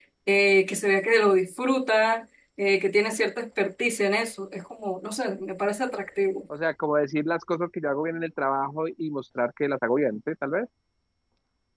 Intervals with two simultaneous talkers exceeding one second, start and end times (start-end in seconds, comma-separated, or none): none